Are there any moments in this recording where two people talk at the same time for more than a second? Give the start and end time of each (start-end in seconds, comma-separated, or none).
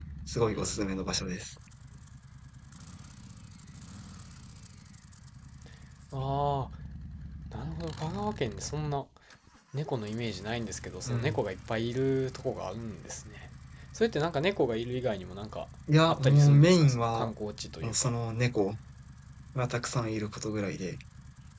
16.1-17.3